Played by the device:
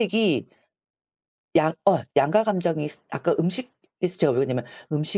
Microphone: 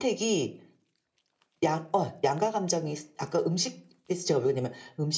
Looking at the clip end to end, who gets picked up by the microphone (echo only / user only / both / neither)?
echo only